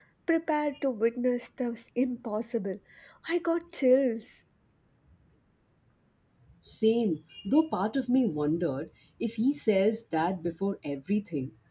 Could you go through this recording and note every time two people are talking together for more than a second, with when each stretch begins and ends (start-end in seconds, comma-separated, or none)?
none